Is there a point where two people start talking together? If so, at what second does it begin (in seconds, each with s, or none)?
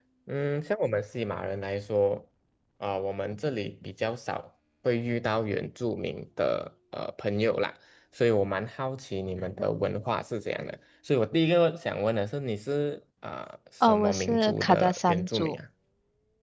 13.8 s